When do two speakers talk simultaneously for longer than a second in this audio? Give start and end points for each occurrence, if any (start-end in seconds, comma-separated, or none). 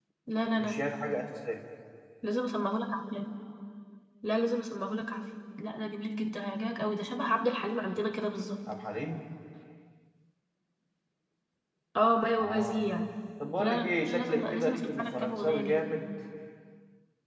13.6-15.8